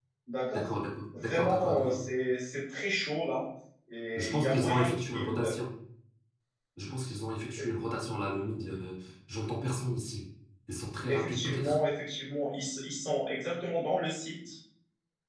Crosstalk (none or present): present